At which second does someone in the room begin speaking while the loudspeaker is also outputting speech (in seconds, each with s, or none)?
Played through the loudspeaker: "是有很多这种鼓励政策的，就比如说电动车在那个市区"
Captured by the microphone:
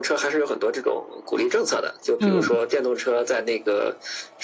2.2 s